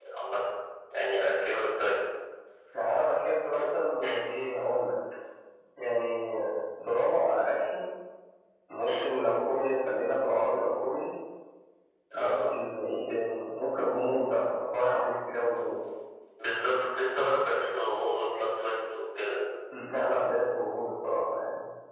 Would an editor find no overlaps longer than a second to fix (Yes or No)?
Yes